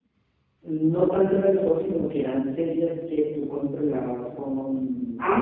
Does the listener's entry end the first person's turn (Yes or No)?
Yes